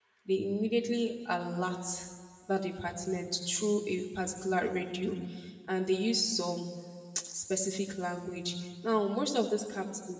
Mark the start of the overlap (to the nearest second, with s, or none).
none